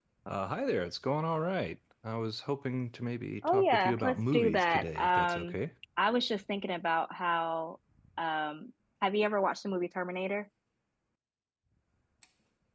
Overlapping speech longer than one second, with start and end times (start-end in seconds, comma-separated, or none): 3.5-5.6